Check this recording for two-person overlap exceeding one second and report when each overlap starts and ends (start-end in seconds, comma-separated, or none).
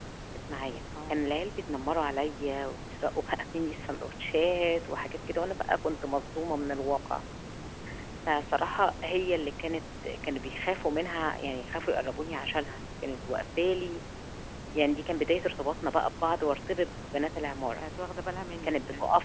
none